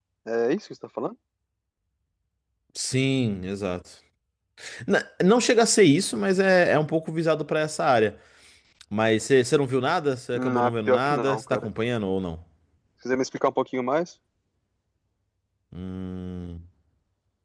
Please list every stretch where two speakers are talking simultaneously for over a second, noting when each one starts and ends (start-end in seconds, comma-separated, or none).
10.3-11.7